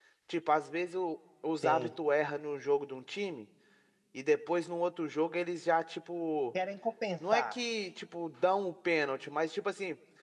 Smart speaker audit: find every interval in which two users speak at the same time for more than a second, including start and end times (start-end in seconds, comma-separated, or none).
none